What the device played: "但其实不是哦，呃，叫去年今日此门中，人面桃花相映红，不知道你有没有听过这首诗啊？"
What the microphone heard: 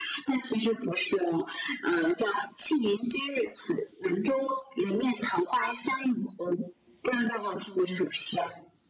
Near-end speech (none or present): none